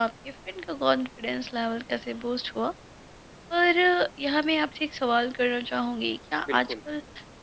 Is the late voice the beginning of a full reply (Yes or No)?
No